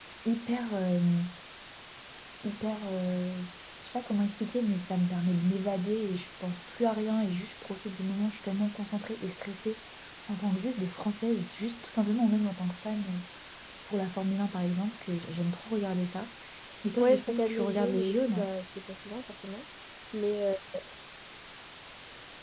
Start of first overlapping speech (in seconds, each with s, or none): 17.0 s